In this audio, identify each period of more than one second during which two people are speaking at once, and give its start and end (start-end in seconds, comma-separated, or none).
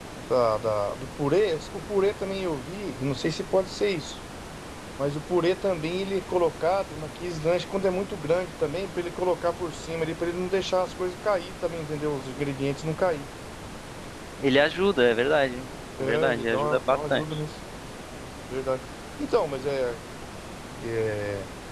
16.0-17.4